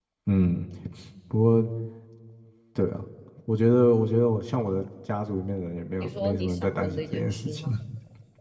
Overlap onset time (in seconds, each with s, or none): 6.0 s